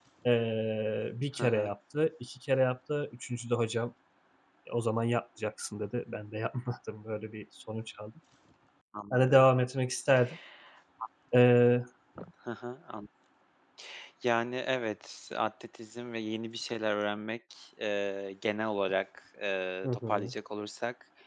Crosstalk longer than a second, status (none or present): none